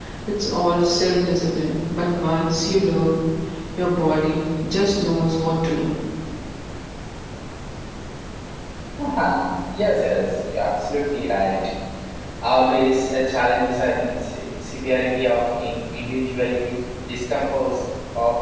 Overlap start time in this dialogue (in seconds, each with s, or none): none